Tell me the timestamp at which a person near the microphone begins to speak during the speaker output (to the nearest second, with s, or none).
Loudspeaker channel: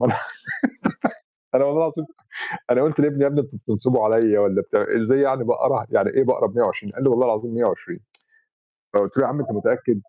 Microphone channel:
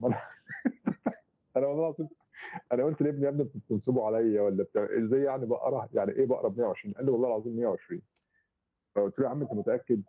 none